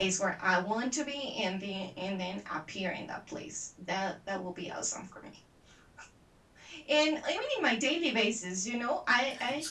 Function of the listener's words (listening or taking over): listening